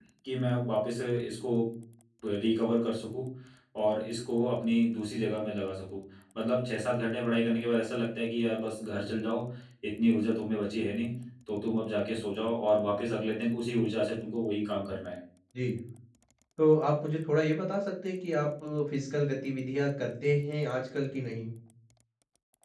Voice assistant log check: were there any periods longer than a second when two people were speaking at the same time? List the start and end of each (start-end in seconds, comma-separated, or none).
none